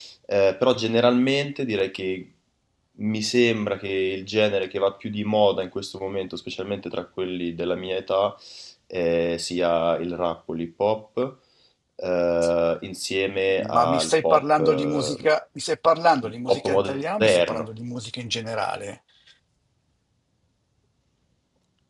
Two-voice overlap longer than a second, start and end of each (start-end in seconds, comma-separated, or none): 13.7-15.2, 16.2-17.7